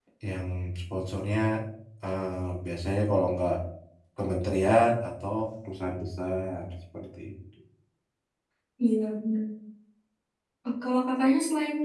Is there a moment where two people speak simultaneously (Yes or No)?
No